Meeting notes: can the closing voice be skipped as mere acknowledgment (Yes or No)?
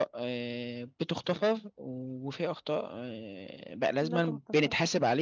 Yes